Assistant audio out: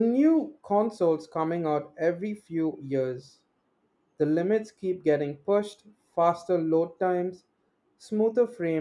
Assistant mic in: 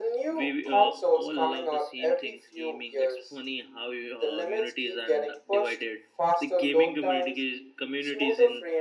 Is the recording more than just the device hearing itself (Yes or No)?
Yes